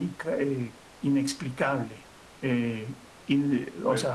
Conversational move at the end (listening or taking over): listening